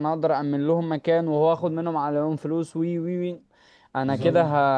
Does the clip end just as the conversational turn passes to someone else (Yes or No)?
No